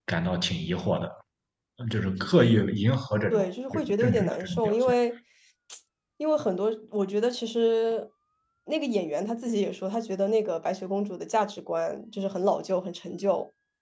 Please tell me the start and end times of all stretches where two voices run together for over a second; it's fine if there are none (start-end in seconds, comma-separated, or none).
3.3-4.9